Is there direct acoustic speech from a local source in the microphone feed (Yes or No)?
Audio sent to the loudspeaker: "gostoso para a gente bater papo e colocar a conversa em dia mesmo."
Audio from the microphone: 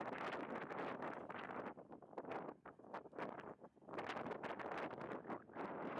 No